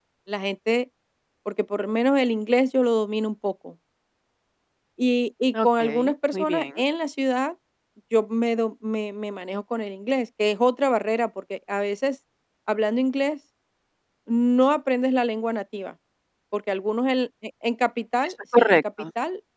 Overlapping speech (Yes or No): Yes